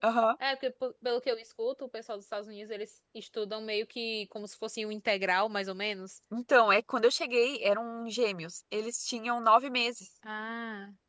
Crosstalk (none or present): none